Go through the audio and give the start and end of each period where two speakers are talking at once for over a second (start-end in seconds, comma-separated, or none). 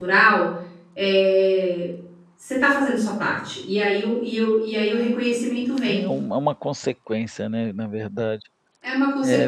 none